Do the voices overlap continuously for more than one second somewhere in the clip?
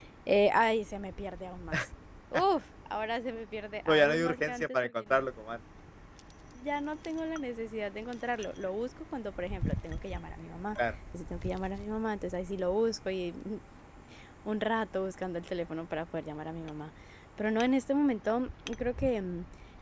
Yes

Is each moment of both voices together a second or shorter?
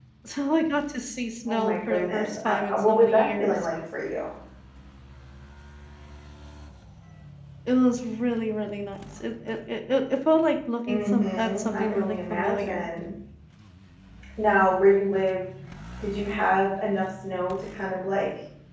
No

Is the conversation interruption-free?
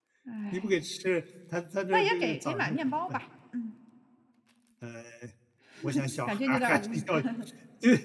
No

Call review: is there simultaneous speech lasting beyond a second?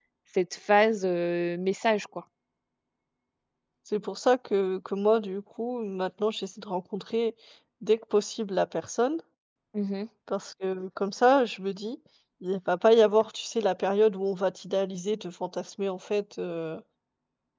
No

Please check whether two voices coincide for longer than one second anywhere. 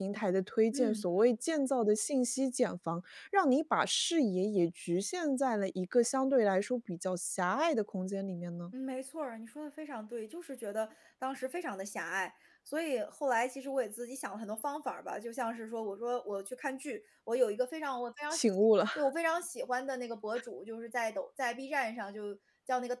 No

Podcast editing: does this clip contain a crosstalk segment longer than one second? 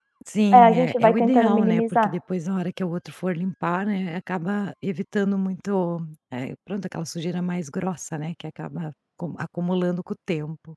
Yes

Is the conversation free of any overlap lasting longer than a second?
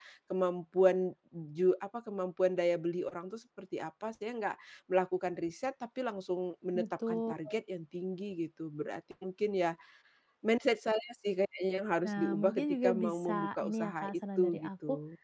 No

